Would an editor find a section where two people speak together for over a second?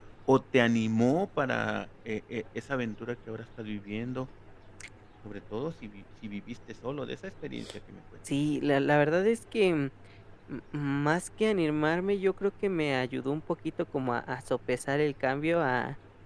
No

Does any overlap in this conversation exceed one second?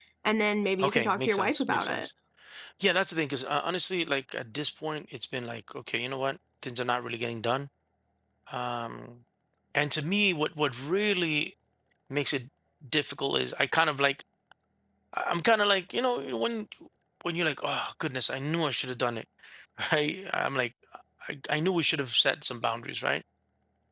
Yes, from 0.8 s

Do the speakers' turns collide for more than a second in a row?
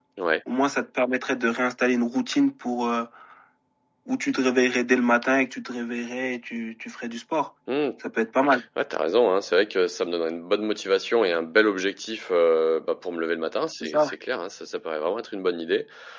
No

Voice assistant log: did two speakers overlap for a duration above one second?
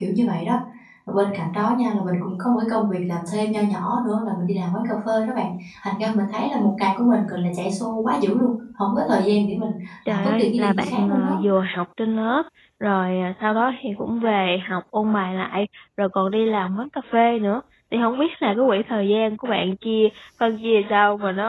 Yes, from 10.1 s

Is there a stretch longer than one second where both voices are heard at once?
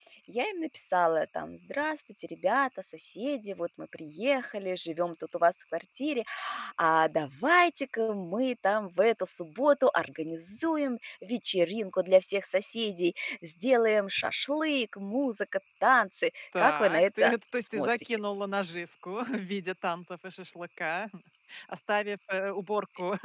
Yes, from 16.5 s

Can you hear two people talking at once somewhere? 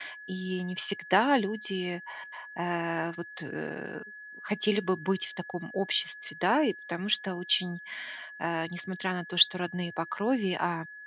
No

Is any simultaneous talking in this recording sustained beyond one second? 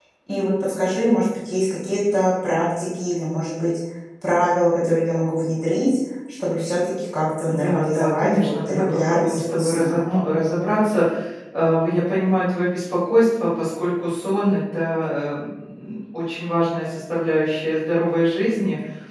Yes, from 7.5 s

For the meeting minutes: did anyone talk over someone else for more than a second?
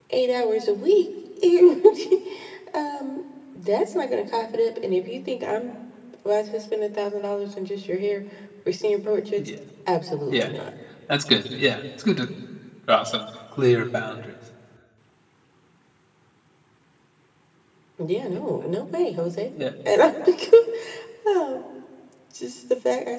No

